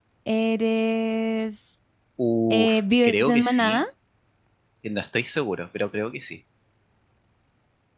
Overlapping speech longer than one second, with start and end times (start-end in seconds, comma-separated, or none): 2.5-3.8